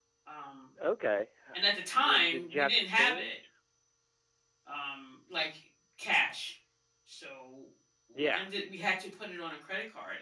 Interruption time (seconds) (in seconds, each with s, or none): 2.0 s